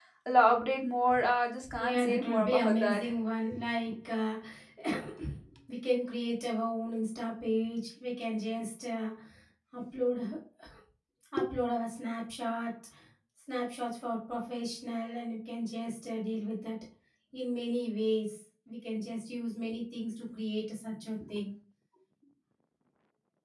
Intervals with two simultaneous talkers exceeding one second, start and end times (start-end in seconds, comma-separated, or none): 1.8-3.1